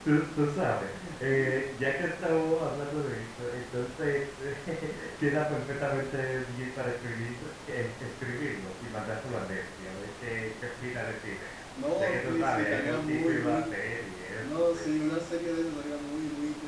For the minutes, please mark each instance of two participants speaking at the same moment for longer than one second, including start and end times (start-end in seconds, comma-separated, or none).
12.0-13.7